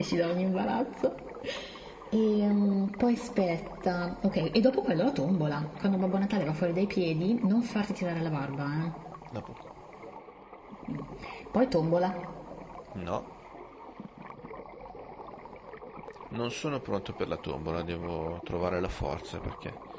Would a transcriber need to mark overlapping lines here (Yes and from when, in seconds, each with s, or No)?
No